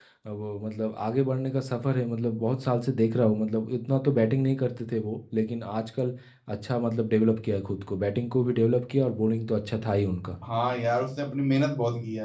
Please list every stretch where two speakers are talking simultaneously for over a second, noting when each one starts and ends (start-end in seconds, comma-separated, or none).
none